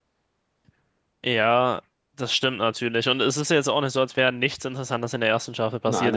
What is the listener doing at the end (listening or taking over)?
listening